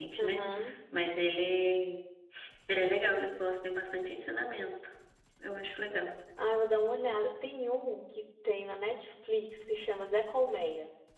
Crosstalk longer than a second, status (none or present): none